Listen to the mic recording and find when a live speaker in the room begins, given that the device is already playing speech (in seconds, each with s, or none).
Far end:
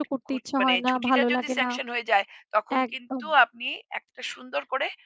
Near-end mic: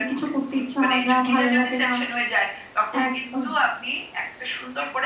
none